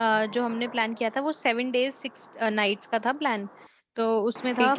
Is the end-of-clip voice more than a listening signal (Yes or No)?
No